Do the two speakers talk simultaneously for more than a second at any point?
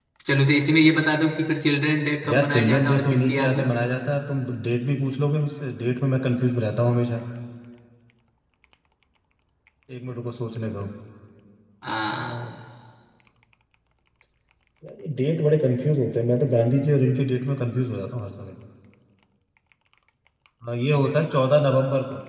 Yes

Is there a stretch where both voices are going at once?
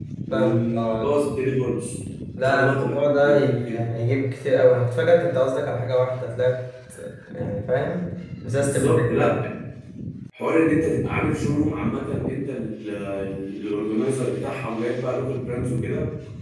Yes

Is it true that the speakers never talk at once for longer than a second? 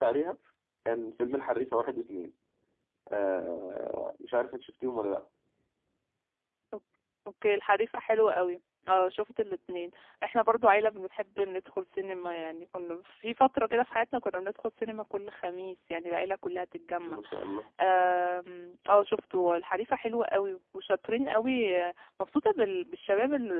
Yes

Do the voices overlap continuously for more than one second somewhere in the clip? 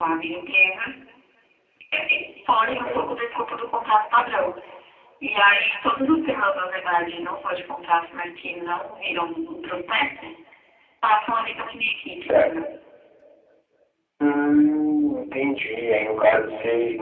No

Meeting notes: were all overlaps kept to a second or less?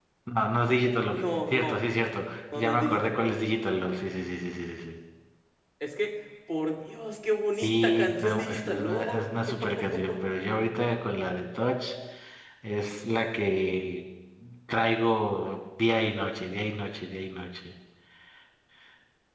No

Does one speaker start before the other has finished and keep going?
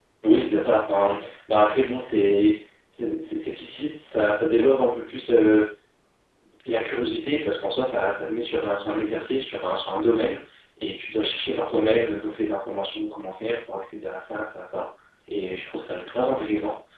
No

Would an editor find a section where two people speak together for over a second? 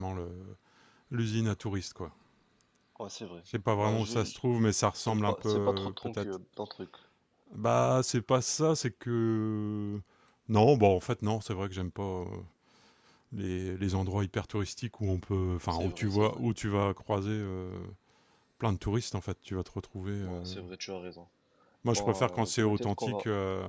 Yes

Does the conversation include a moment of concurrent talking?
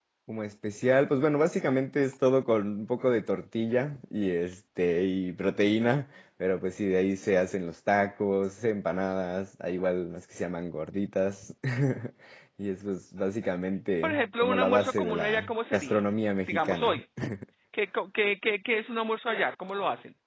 Yes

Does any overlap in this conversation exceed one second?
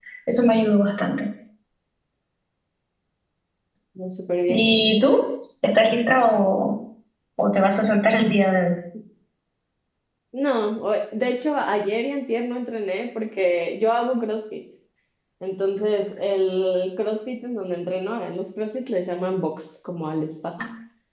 No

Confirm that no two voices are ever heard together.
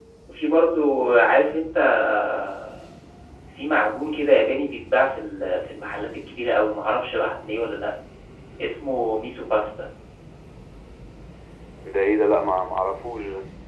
Yes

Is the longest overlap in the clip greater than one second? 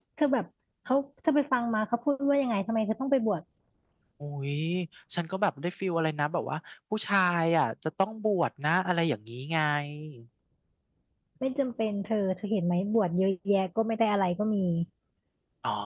No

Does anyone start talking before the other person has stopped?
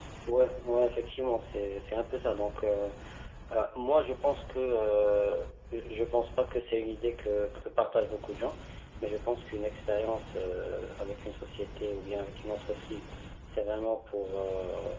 No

